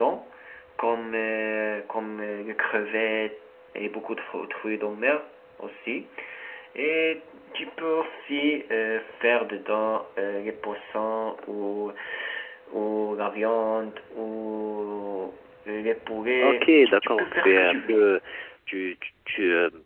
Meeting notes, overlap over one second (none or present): present